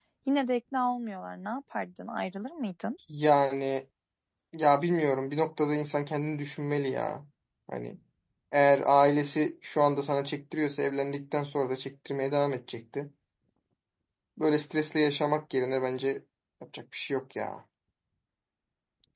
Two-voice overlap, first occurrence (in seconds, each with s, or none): none